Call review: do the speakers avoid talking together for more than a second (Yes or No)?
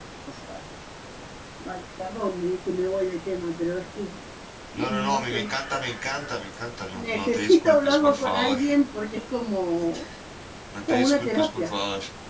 No